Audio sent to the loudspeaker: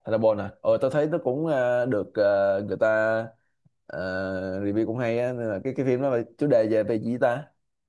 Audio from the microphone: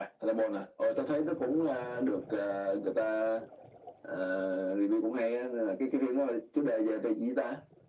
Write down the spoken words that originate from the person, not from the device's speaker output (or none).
none